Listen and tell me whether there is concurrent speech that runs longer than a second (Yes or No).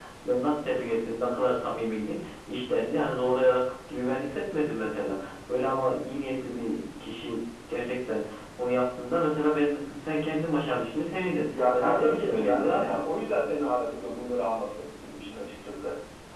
Yes